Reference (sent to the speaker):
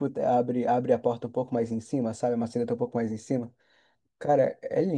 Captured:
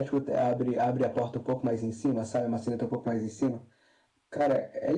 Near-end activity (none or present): none